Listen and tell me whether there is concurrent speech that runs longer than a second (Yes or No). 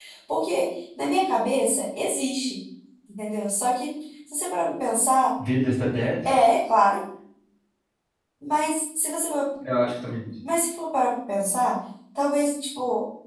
No